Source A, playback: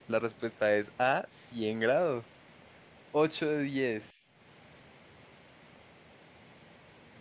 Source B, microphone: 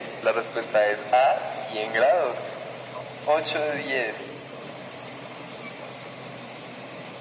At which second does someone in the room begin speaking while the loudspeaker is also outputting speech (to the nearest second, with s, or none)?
none